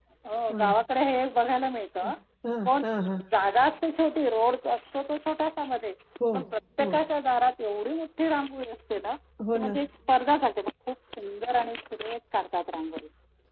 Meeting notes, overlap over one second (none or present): none